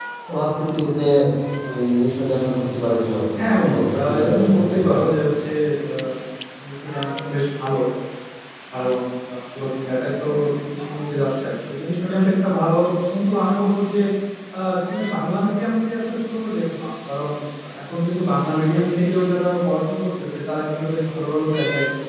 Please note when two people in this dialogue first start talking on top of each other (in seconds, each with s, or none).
3.4 s